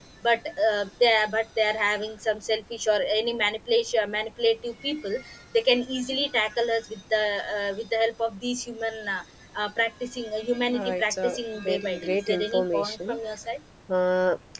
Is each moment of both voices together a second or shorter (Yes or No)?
No